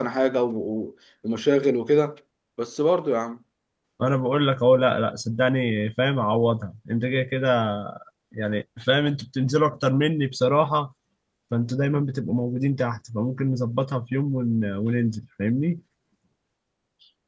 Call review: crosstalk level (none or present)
none